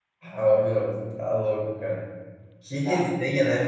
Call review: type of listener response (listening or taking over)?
listening